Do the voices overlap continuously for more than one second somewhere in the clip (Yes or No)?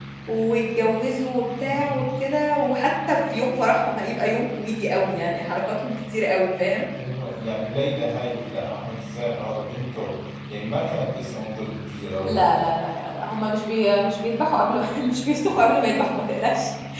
No